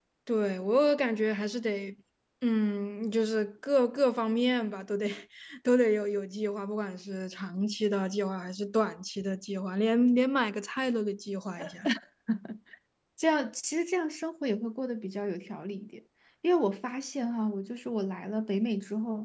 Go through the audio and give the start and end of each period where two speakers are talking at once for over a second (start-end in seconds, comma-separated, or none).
none